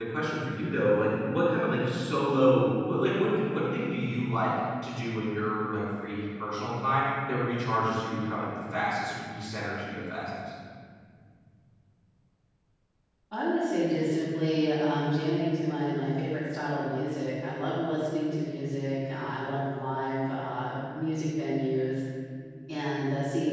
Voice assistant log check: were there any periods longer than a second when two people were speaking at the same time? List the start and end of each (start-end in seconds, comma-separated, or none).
none